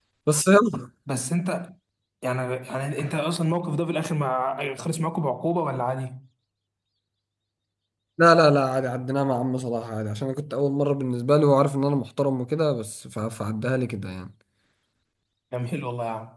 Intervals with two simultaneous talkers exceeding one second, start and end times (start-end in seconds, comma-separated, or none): none